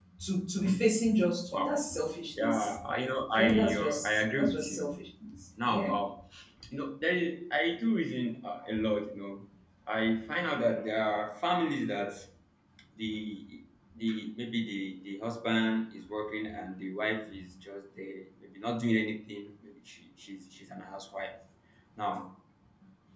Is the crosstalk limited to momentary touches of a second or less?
No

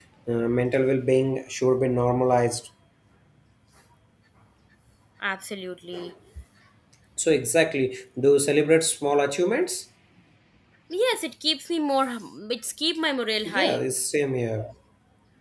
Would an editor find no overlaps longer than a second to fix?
Yes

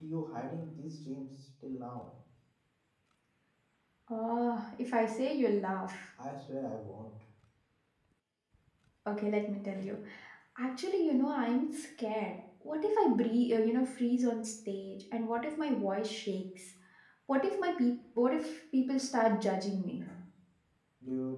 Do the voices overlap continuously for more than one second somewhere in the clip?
No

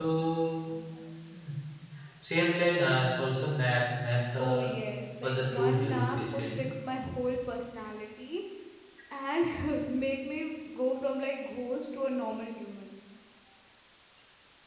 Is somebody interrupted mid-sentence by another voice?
Yes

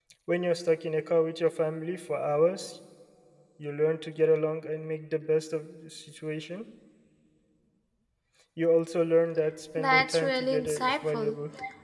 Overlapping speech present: Yes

